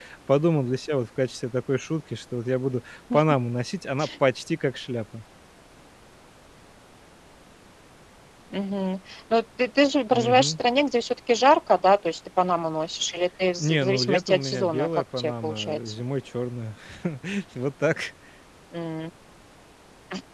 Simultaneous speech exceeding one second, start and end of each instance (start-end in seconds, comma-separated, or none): 13.6-16.0